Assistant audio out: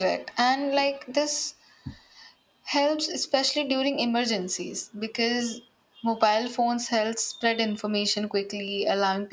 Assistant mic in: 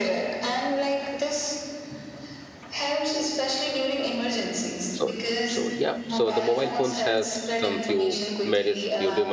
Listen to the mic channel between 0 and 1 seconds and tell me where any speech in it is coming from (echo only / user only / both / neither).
echo only